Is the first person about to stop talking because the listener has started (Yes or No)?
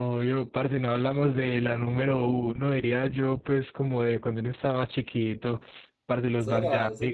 Yes